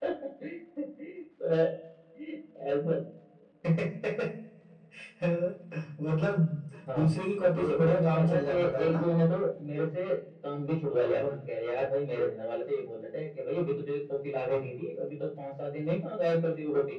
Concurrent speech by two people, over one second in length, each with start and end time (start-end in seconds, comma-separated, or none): 7.5-9.0